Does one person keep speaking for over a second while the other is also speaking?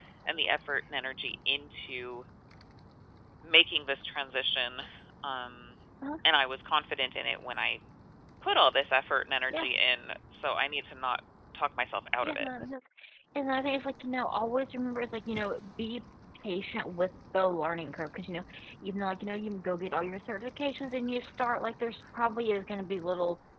No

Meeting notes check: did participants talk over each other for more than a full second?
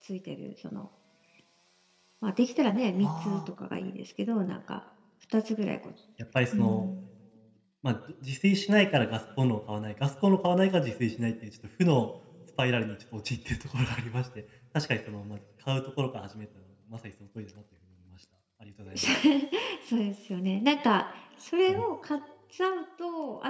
No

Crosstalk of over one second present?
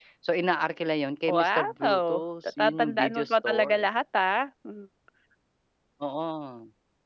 Yes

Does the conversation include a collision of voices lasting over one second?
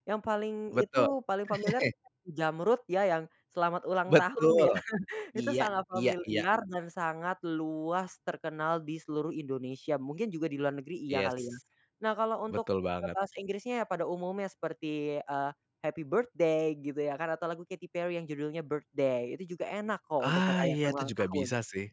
Yes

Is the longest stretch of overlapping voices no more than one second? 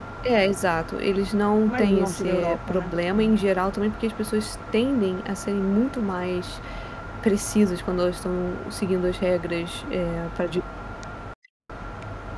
No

